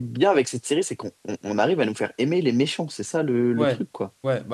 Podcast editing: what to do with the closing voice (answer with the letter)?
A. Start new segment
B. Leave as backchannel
A